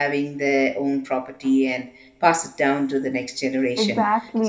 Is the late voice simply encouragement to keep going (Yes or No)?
Yes